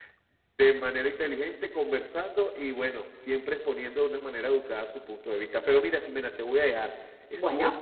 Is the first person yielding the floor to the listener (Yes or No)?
No